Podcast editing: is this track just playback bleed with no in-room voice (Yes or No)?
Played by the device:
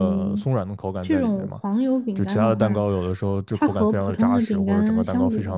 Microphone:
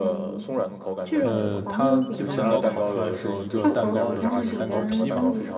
No